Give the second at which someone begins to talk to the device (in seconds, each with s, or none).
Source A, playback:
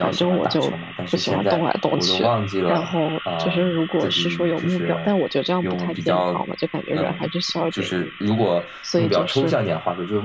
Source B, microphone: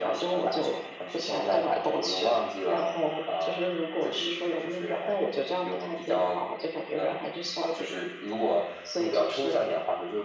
none